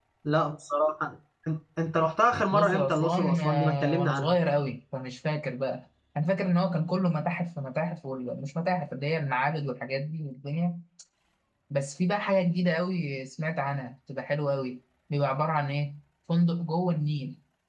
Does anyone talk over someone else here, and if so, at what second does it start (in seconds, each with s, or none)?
2.5 s